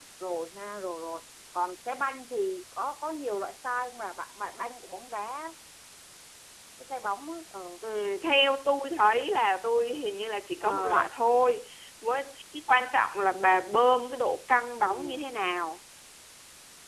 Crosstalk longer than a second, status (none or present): none